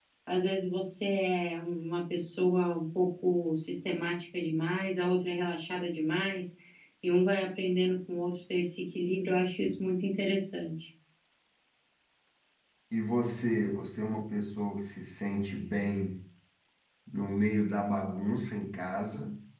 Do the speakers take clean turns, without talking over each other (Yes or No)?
Yes